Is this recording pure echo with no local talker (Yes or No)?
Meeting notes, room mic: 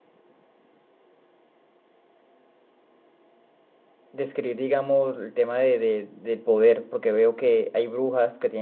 No